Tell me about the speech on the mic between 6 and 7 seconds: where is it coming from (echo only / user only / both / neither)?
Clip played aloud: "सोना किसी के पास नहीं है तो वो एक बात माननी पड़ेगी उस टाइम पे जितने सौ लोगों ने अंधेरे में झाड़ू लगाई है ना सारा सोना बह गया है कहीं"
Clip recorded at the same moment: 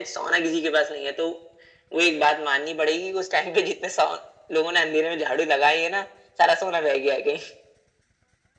echo only